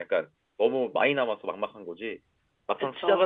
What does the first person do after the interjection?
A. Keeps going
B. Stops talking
A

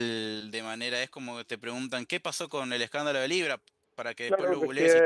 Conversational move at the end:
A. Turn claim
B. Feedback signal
A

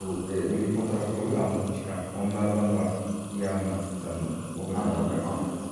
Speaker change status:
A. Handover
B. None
A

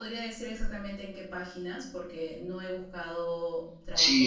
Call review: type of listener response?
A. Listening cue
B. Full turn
B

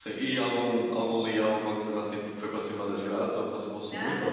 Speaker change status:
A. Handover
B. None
A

